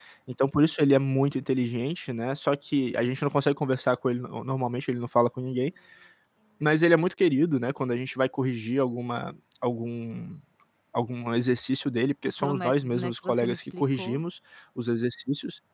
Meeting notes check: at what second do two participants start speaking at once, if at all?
12.2 s

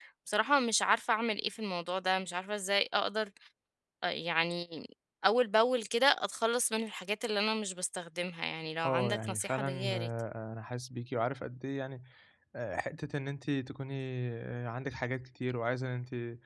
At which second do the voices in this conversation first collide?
8.8 s

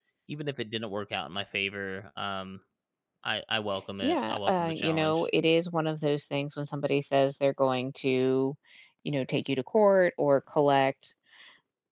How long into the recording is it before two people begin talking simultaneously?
4.0 s

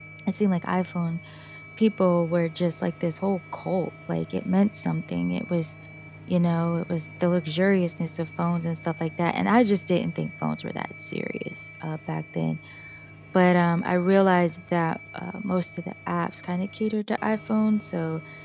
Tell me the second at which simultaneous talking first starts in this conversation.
none

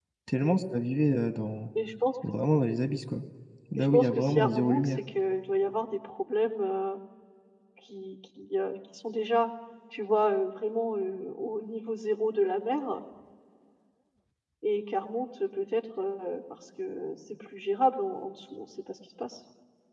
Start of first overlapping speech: 3.8 s

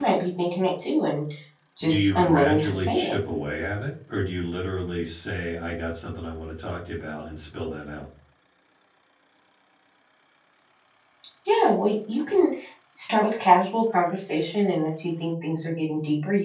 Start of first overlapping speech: 1.8 s

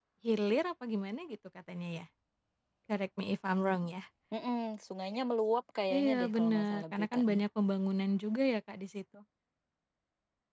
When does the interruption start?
5.9 s

